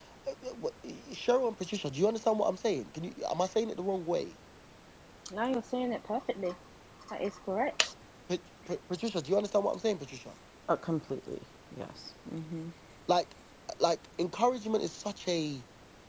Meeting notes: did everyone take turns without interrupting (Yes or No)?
Yes